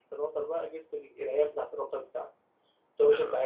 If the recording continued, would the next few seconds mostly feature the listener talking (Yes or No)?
No